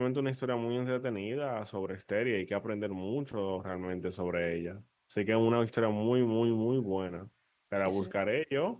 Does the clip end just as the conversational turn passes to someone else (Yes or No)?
No